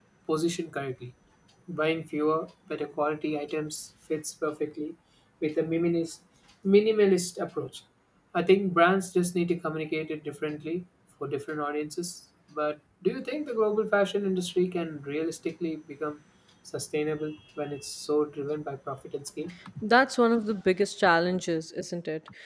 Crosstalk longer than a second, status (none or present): none